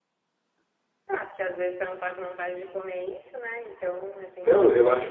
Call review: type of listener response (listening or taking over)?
taking over